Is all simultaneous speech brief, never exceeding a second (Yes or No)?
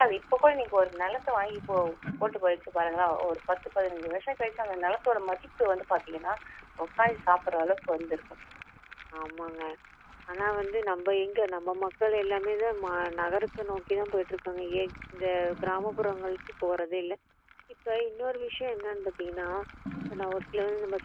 Yes